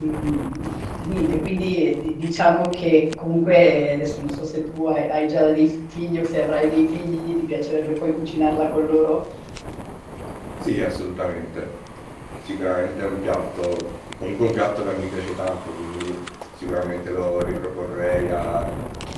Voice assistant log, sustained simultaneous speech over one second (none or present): none